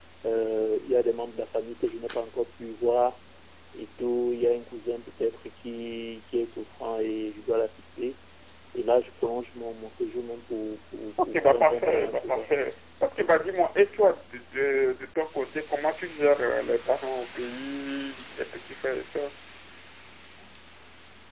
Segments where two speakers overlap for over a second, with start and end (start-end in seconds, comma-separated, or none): 11.2-12.5